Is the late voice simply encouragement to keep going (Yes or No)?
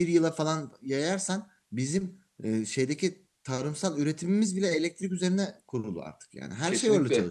No